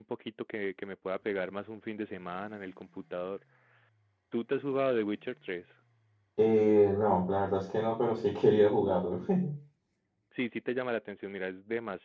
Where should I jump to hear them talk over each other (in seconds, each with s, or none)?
none